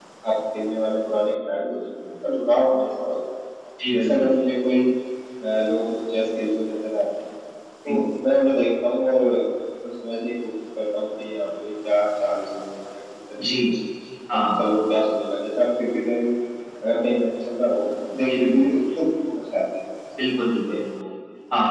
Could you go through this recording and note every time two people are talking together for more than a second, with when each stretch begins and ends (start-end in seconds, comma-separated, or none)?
none